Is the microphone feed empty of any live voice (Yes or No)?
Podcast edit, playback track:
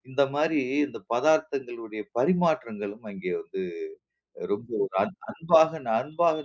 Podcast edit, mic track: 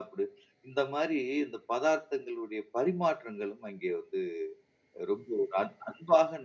Yes